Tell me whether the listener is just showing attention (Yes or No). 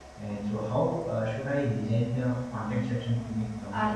No